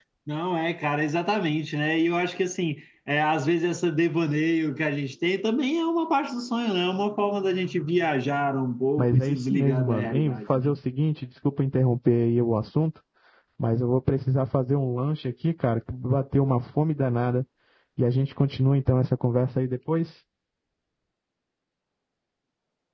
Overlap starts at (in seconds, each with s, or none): 9.0 s